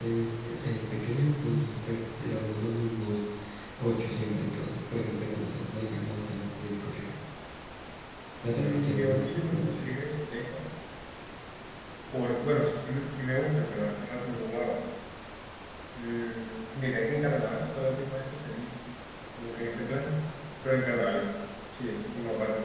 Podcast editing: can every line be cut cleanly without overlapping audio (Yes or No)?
No